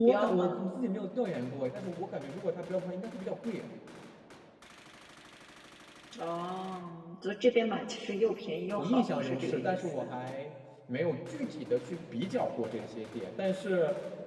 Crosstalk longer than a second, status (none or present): present